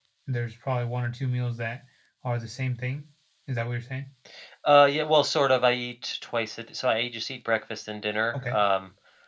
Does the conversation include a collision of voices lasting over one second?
No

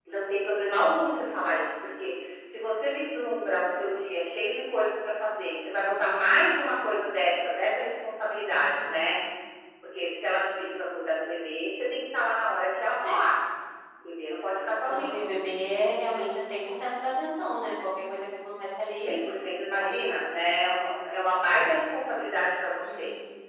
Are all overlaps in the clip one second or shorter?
Yes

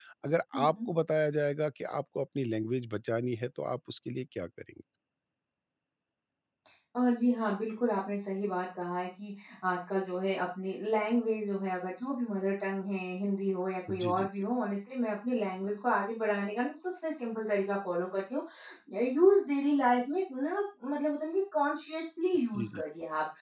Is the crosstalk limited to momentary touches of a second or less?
Yes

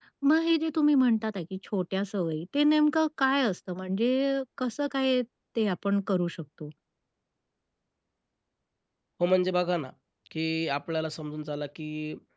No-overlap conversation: Yes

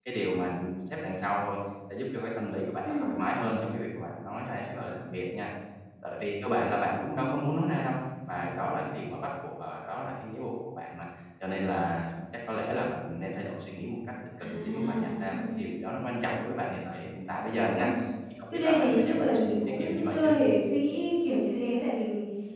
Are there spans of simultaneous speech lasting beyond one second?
Yes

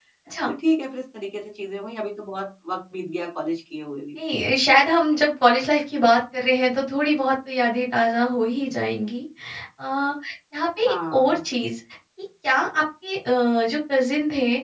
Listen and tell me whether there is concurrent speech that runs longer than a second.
No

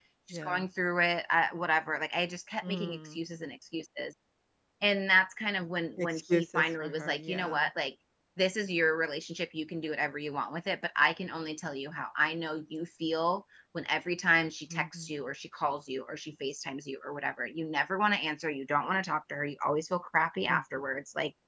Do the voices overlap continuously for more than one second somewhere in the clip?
Yes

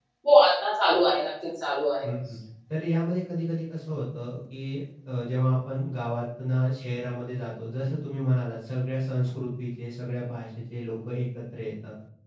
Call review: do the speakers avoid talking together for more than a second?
Yes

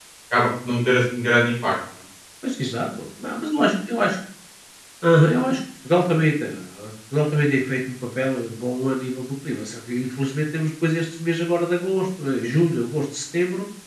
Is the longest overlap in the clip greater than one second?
No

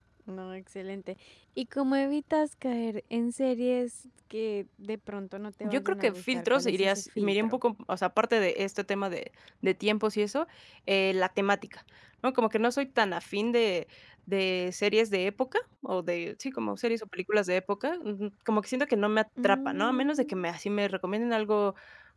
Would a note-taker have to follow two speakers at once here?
Yes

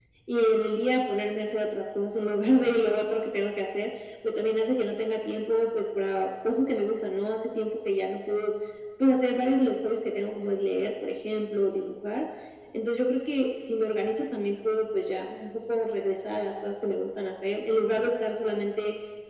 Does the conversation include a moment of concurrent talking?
No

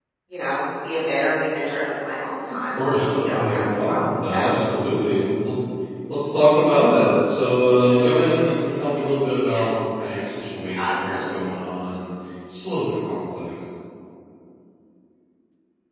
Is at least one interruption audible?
Yes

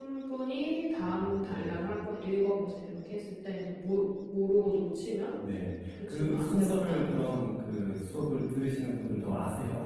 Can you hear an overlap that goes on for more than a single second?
Yes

